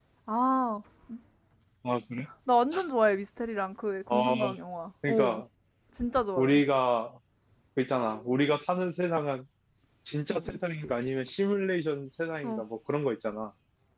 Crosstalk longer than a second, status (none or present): none